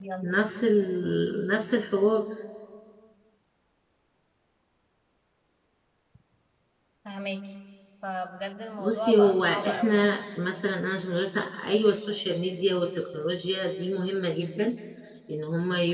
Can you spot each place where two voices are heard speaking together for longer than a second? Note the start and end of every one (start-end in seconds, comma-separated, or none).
8.8-10.2